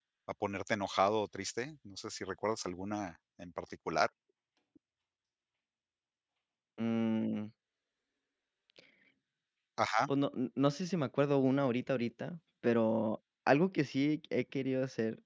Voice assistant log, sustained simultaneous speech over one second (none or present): none